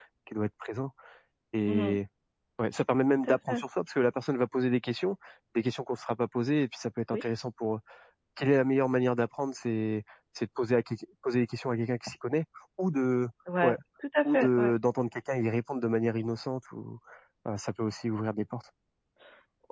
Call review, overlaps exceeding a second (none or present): none